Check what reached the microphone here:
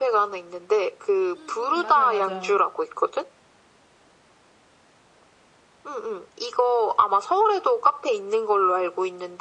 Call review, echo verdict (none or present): present